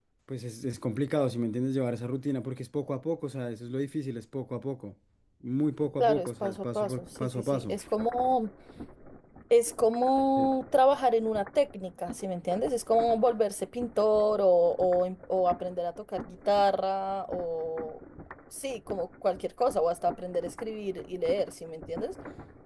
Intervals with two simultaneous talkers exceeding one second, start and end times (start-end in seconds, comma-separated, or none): 6.0-7.8